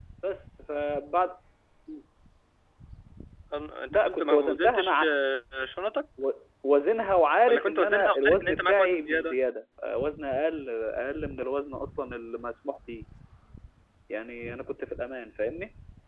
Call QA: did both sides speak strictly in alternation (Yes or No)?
No